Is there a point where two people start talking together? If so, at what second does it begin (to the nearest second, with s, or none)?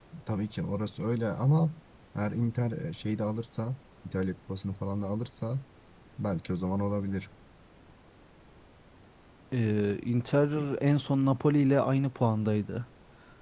none